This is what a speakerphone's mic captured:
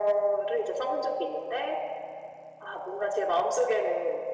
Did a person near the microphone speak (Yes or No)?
No